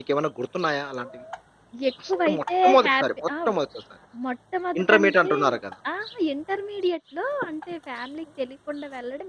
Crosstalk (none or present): present